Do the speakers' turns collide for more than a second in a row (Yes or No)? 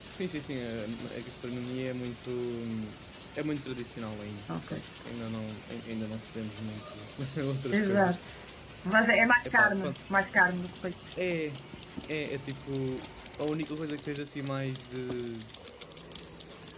No